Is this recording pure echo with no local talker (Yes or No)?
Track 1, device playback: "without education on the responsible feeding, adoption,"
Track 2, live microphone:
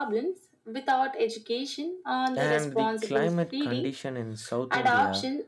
No